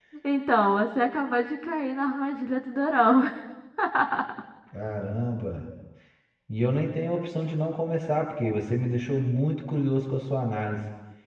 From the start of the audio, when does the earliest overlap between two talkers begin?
none

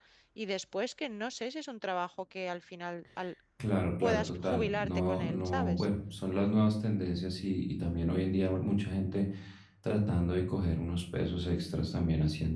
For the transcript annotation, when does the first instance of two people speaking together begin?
4.0 s

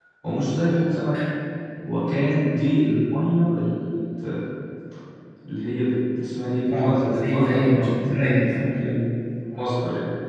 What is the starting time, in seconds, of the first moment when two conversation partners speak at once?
6.7 s

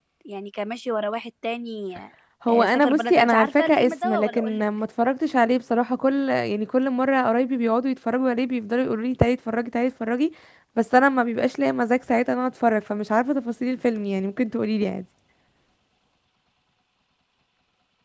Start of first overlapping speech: 2.5 s

